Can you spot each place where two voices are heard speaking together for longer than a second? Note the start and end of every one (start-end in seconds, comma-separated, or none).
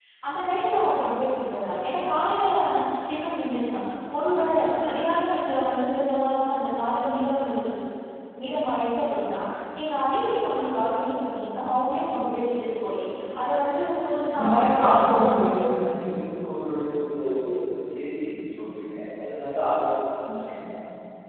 14.3-15.7